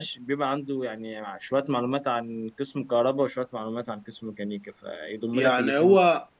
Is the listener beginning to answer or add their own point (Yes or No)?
Yes